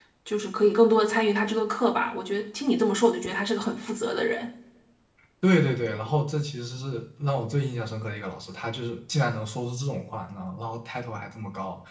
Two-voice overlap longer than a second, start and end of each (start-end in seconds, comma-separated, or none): none